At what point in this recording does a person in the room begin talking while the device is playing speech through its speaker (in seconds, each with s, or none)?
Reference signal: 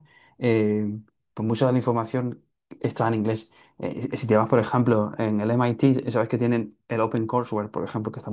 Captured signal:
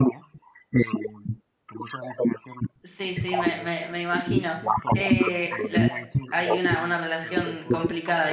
2.8 s